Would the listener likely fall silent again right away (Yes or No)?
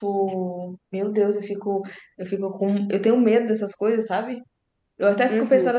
Yes